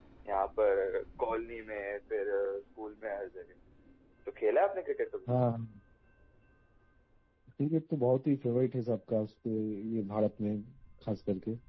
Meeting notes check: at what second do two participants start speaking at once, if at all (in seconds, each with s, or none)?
none